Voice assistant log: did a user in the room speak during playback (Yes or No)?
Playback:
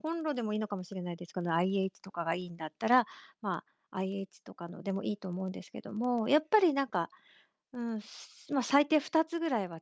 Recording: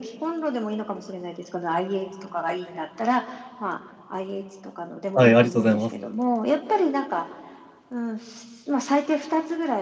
Yes